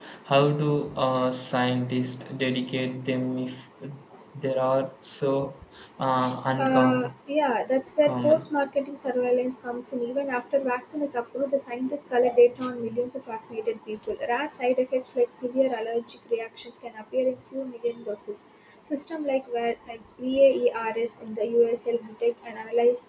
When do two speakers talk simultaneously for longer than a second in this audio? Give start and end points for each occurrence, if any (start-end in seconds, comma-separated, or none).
none